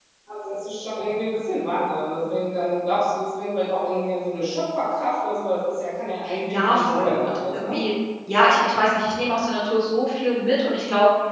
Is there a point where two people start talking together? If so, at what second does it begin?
6 s

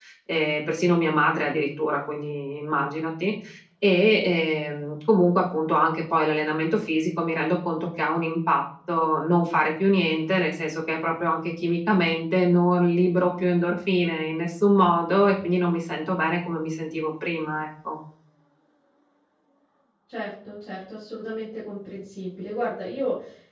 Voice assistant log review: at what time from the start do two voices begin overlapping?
none

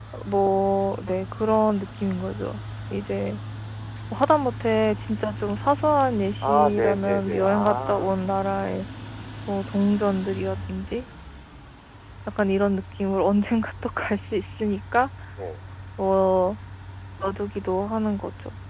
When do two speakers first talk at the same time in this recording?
6 s

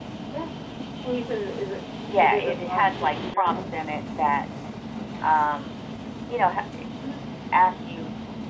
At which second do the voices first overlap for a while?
2 s

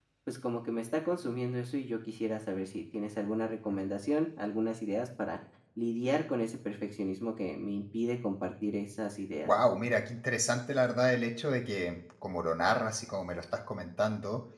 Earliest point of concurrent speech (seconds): none

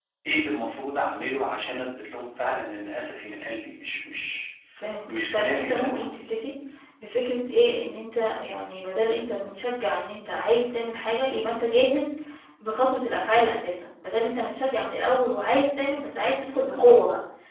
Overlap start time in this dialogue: 5 s

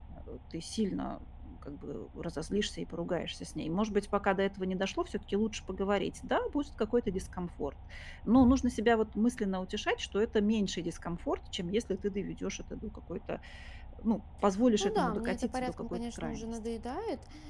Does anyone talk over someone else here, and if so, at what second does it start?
15 s

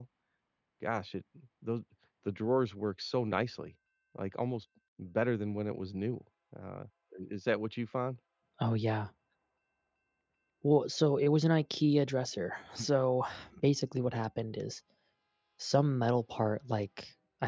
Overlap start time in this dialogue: none

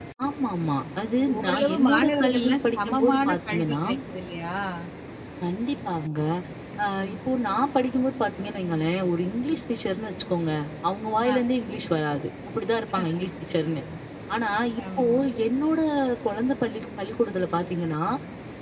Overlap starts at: 1 s

